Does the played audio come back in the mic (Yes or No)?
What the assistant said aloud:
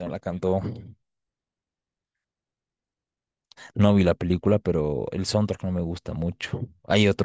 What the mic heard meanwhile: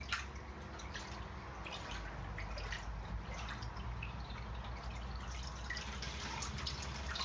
No